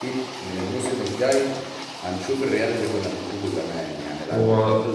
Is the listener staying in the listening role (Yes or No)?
Yes